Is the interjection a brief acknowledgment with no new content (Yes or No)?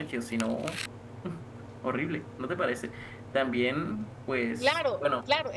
No